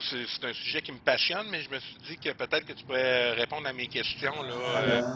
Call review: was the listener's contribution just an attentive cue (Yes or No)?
No